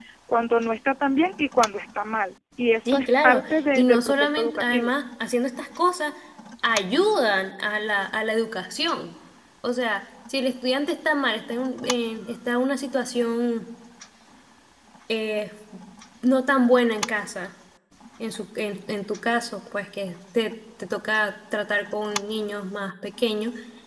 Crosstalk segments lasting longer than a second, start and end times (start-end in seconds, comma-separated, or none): 2.9-4.9